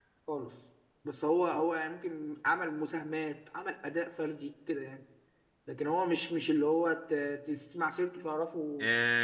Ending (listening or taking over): taking over